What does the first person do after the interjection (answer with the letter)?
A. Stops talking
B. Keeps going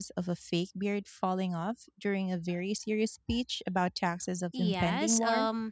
A